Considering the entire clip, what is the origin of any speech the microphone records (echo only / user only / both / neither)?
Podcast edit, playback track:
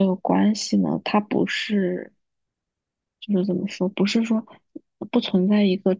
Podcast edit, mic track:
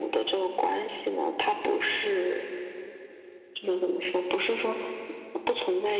echo only